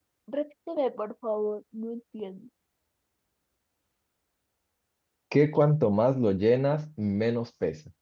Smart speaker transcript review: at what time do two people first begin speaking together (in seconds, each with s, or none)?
none